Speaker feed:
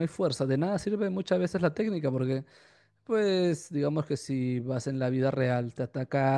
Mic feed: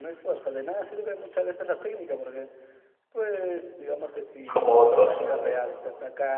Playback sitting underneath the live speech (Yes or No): Yes